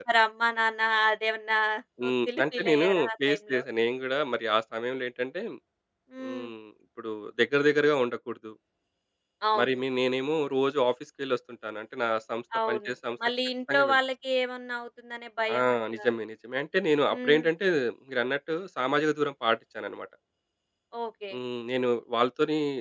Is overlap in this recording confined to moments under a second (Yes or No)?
No